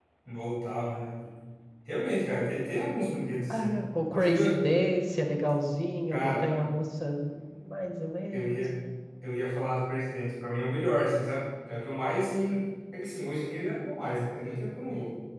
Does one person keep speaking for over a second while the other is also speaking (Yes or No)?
No